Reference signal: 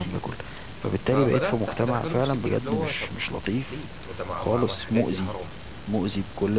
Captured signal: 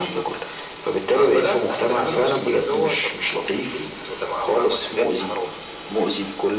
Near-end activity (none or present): none